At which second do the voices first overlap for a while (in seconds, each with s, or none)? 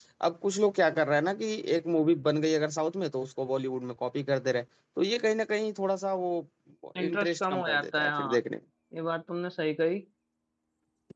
7.1 s